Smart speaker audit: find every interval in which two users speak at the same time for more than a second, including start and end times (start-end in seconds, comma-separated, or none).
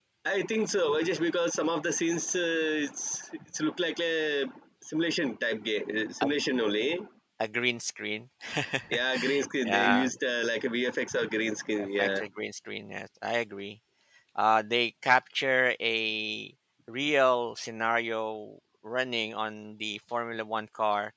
none